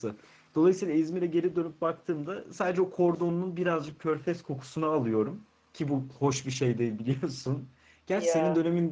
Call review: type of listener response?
listening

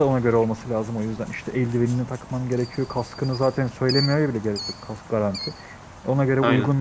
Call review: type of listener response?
listening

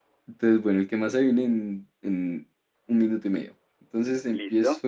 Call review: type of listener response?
listening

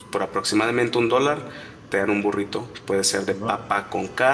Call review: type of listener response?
listening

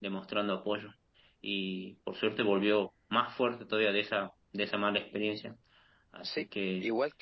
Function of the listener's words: taking over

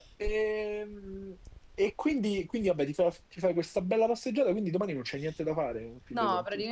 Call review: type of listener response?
taking over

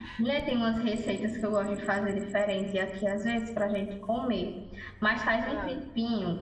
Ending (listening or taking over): listening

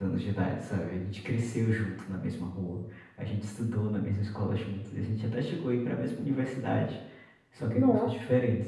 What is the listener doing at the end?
listening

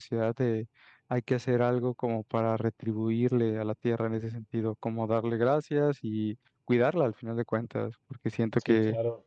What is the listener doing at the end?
taking over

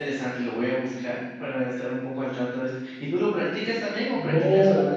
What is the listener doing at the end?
taking over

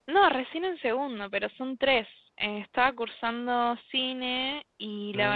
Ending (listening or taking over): listening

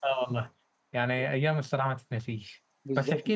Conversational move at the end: listening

